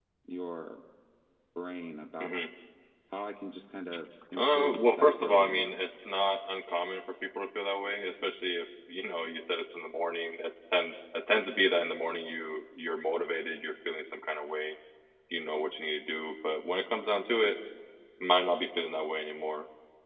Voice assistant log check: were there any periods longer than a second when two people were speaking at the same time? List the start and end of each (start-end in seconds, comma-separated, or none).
4.4-5.7